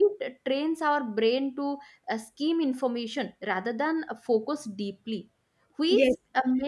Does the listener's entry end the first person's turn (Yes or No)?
No